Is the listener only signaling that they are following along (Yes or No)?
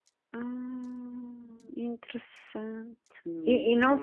No